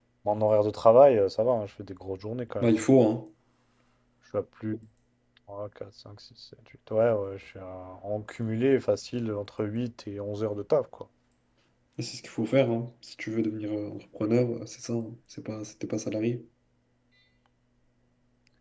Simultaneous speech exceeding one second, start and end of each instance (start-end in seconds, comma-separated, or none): none